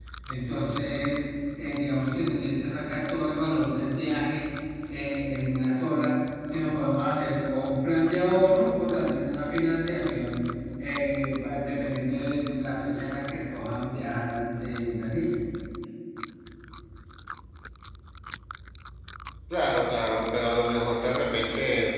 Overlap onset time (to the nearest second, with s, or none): none